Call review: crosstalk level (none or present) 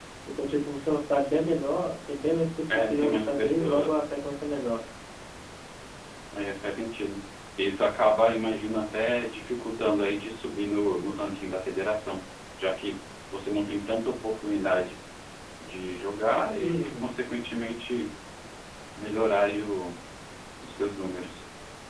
present